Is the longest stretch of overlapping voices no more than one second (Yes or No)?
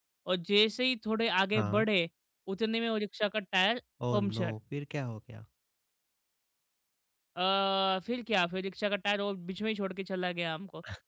Yes